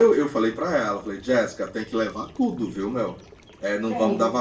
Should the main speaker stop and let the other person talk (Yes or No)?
No